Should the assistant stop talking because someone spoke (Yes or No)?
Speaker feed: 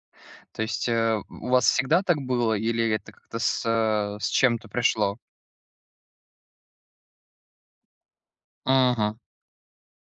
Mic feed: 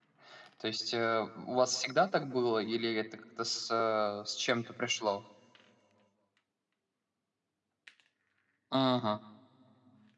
No